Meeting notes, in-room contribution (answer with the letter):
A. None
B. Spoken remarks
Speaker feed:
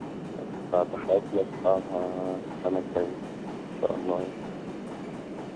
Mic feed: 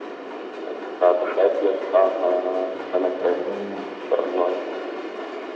B